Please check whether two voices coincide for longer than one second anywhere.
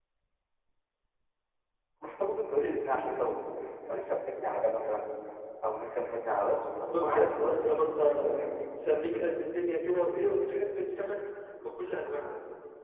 Yes, from 6.9 s

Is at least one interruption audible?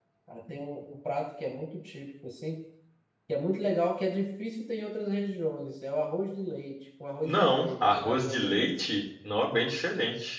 Yes, from 7.2 s

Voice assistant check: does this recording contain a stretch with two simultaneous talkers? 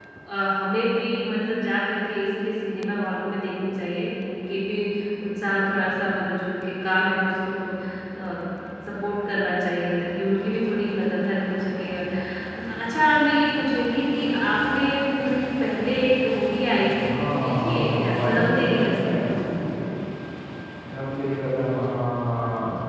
Yes, from 16.9 s

